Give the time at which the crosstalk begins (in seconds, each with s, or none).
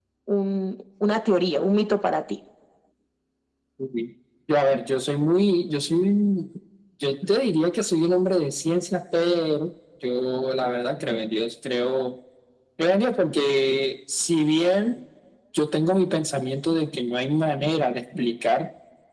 none